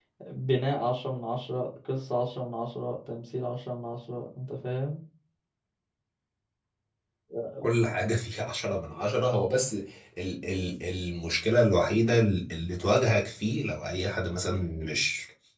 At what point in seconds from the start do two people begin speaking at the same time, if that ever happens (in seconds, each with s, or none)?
none